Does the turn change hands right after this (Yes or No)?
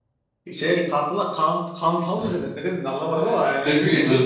Yes